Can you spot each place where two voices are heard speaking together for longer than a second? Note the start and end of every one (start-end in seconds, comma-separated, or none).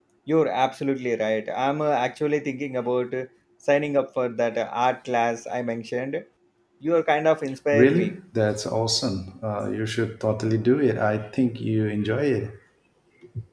none